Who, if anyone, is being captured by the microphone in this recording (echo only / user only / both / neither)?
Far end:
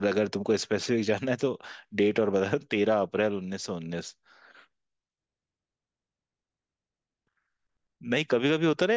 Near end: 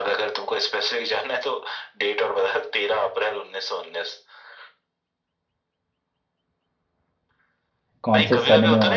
both